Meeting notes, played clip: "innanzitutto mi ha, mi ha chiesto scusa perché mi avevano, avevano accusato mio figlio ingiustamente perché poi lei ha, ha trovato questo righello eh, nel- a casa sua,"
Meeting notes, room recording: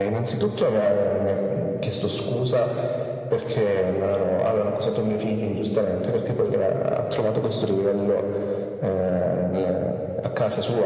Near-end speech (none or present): none